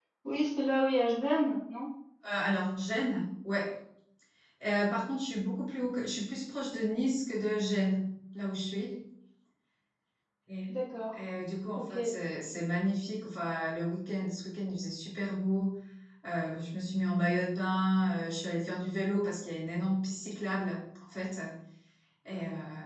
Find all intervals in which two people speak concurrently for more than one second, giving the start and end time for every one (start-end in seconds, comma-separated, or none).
none